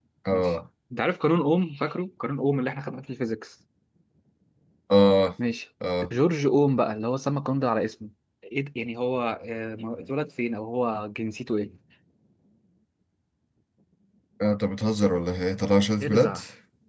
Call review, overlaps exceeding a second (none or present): none